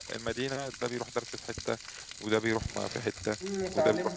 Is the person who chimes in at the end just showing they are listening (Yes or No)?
No